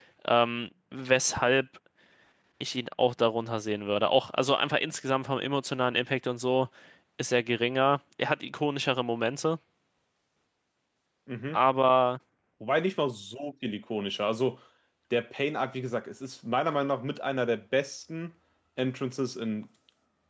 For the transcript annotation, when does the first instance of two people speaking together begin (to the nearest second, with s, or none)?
none